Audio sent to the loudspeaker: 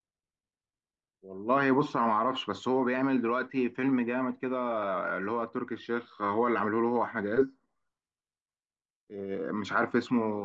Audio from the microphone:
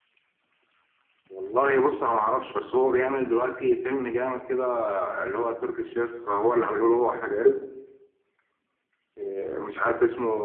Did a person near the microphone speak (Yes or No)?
No